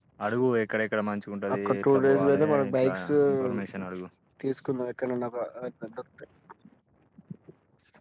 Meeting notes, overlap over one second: present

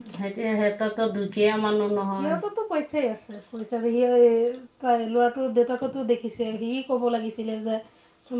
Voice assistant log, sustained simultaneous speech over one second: none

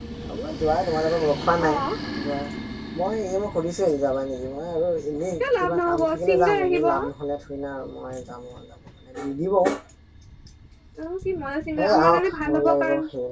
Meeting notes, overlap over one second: present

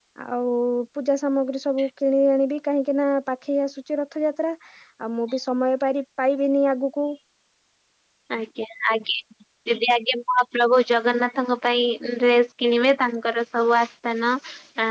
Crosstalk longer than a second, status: none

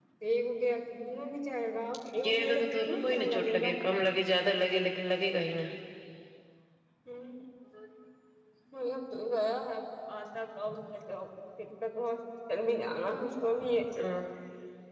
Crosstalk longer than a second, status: present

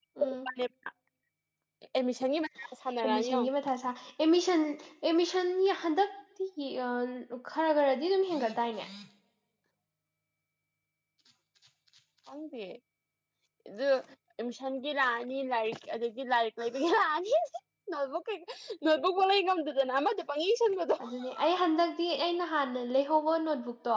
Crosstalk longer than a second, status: none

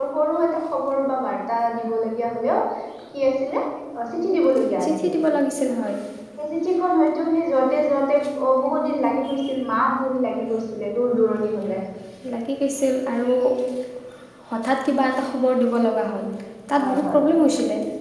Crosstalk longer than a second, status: none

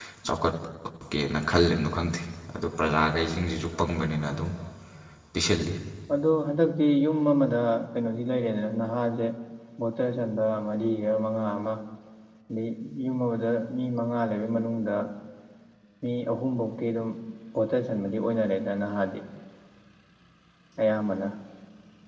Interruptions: none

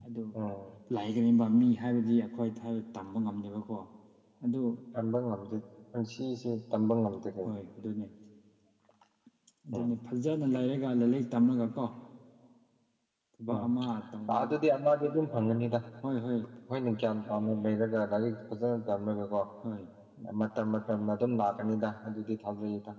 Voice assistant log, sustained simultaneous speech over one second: none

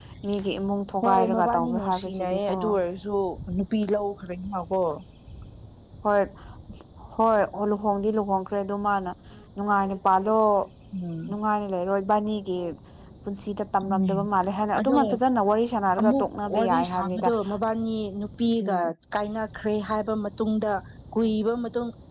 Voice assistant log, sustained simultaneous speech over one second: present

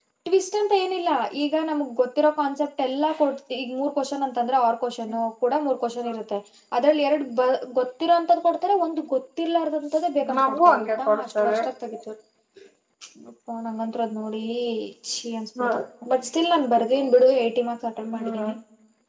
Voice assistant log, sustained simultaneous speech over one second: present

